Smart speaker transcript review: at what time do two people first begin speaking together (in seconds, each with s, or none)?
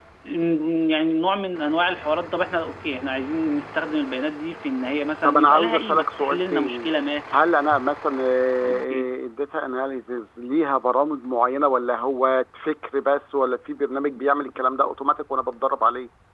5.2 s